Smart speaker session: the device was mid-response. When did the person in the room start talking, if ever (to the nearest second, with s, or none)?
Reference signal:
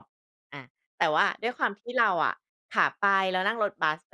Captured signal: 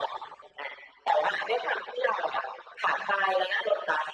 none